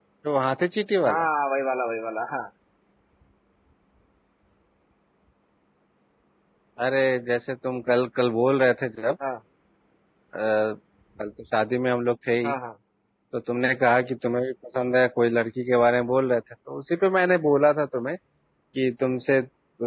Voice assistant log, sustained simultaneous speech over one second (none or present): none